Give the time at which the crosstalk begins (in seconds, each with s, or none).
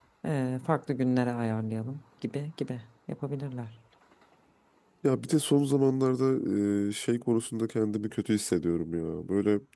none